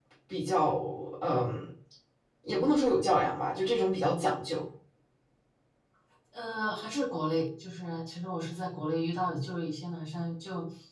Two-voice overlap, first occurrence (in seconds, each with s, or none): none